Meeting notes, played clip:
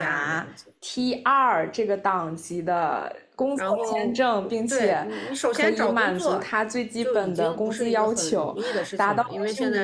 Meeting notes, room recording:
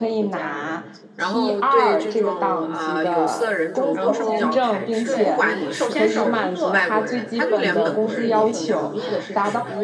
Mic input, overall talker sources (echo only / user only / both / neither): both